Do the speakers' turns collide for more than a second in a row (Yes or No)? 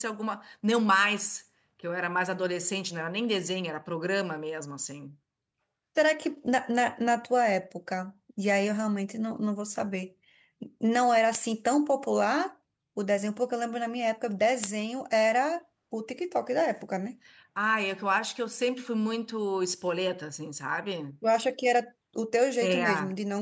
No